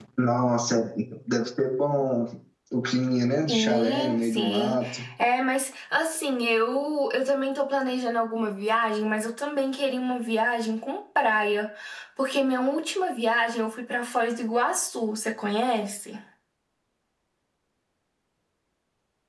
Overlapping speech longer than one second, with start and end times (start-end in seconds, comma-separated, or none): 3.5-4.8